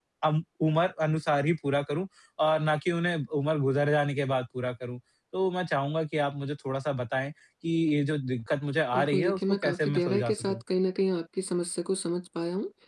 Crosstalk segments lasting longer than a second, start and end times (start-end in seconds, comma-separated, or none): 8.9-10.6